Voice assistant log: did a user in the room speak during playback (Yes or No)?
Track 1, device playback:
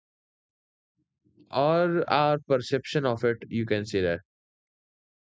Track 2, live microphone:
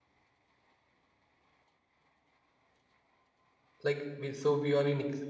Yes